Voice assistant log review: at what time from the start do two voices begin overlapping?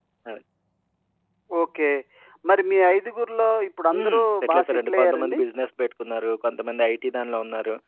3.9 s

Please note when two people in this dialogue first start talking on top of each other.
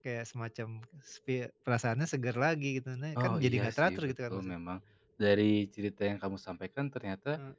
3.2 s

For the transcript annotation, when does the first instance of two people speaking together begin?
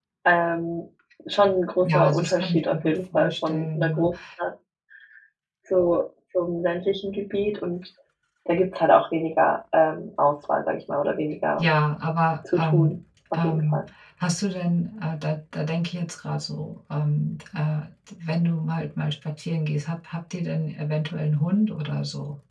1.8 s

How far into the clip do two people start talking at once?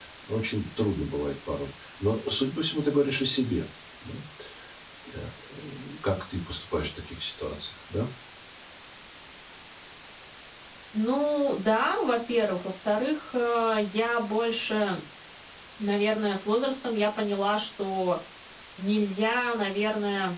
none

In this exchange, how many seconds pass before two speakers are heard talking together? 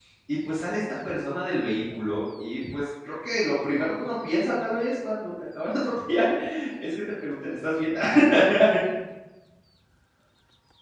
none

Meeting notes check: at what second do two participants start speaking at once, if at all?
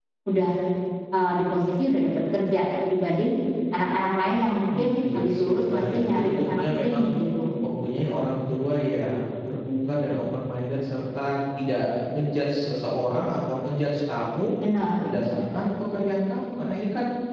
4.7 s

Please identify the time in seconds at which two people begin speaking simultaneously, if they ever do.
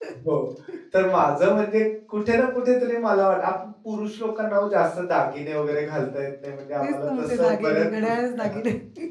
6.8 s

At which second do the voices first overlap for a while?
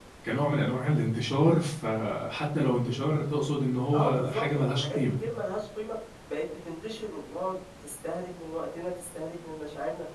3.9 s

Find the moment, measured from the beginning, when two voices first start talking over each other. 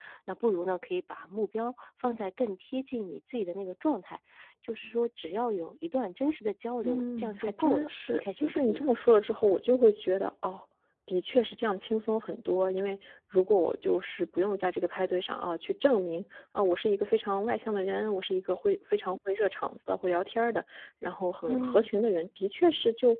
6.8 s

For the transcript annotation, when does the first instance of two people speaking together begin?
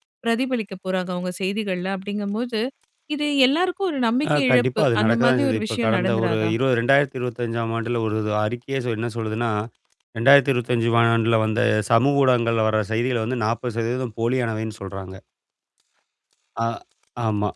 4.2 s

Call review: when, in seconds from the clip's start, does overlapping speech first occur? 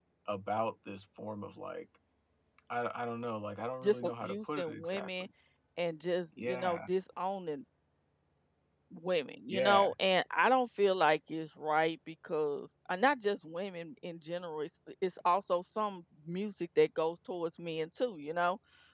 3.8 s

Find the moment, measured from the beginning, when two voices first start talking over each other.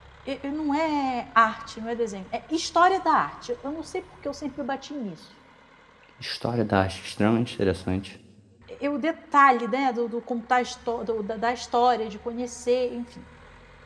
none

